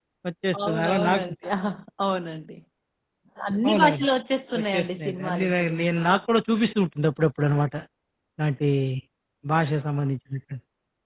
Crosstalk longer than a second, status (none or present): present